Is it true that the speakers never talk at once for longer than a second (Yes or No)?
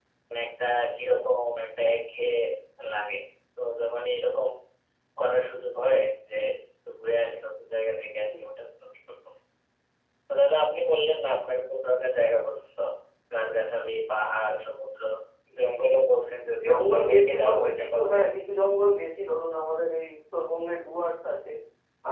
No